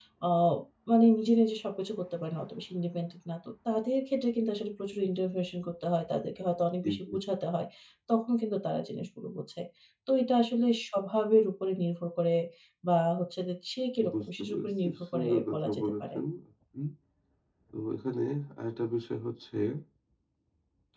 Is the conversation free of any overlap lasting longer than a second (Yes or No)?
No